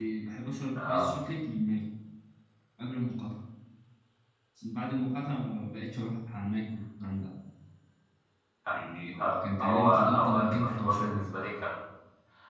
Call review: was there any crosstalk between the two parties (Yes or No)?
Yes